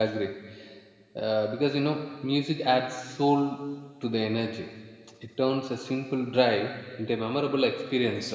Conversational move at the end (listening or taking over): taking over